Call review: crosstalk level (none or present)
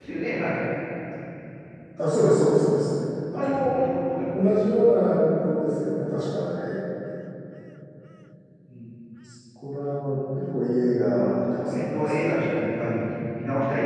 present